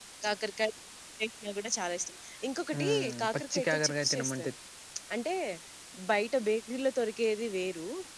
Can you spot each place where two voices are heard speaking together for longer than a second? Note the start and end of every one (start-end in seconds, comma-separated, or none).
2.8-4.5